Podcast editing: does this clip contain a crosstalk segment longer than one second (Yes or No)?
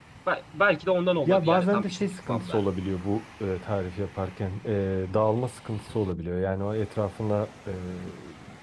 Yes